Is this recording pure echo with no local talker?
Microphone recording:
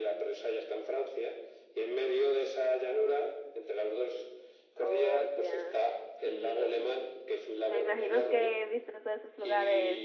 No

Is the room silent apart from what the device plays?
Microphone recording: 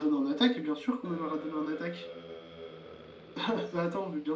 No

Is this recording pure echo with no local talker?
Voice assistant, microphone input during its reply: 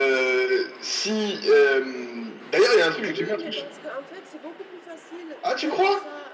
No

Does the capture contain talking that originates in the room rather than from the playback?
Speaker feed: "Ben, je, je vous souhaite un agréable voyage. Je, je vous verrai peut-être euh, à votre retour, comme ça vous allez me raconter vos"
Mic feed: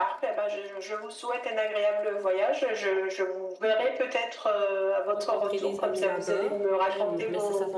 Yes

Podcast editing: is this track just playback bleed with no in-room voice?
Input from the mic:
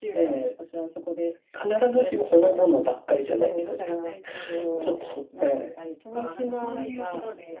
No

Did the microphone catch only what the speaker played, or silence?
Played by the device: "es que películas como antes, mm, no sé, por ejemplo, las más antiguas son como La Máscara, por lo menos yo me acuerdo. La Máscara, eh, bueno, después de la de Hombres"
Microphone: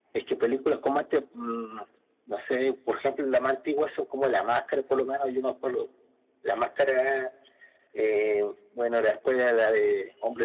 Yes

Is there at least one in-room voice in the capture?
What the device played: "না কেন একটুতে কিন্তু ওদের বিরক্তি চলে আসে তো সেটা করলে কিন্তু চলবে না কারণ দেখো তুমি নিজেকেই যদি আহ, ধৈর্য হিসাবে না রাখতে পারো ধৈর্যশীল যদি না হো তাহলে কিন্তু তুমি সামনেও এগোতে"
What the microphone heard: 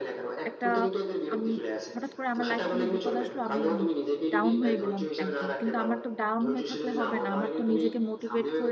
Yes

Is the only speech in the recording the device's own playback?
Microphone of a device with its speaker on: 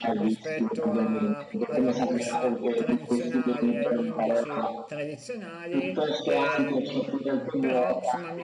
No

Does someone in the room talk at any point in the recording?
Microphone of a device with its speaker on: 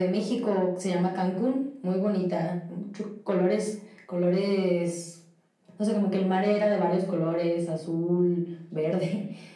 No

